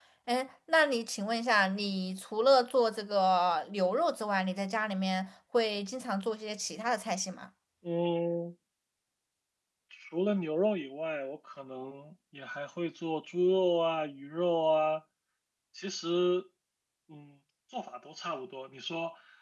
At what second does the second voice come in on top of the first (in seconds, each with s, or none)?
none